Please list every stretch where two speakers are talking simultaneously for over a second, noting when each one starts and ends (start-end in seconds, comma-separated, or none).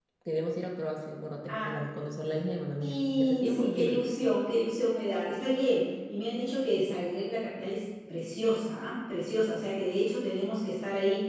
2.8-4.1